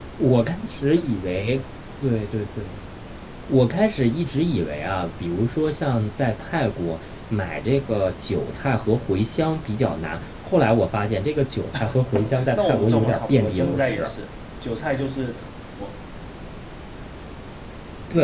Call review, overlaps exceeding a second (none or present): present